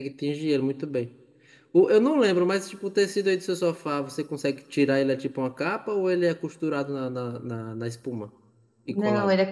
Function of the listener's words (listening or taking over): taking over